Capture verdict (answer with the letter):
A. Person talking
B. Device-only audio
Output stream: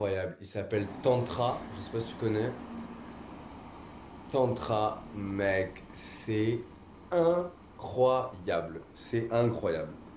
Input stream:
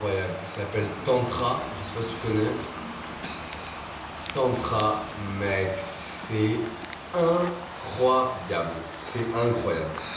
B